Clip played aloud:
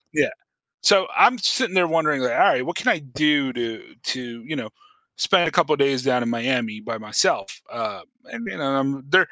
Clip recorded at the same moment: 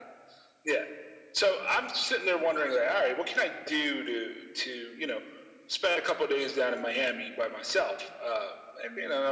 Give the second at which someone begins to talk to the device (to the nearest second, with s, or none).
none